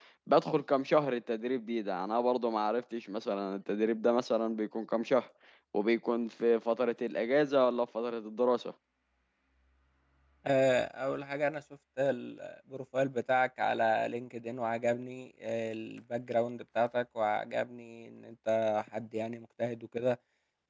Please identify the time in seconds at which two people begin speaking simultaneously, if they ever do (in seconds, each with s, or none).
none